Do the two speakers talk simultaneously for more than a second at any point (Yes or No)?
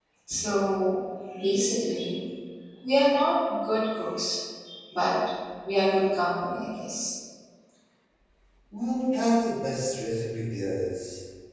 No